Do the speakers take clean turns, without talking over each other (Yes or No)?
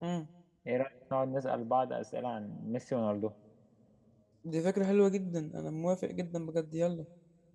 Yes